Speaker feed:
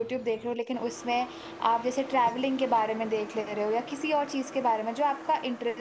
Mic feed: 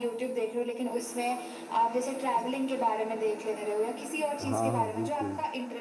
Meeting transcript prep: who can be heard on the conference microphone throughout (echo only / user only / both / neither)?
both